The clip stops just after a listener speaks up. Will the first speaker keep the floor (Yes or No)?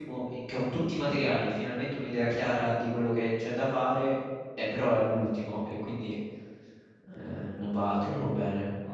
No